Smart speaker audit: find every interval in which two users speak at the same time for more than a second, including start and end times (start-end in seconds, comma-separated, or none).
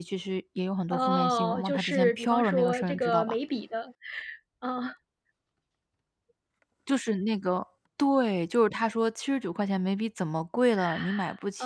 0.9-3.4